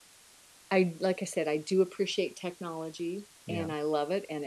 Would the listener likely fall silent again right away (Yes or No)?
Yes